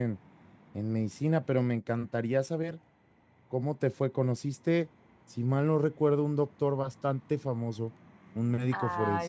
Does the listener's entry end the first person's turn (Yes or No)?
Yes